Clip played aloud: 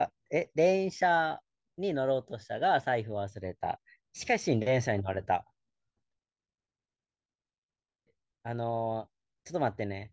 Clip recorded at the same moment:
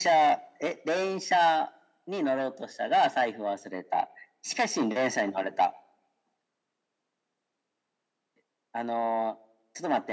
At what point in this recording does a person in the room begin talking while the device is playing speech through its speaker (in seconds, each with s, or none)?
none